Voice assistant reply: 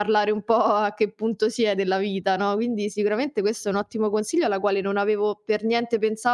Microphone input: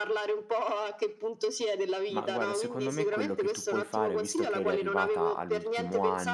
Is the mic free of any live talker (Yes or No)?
No